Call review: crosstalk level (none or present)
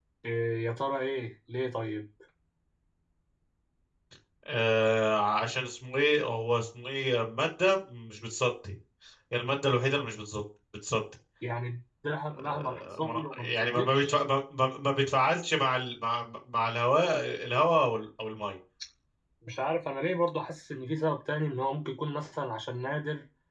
present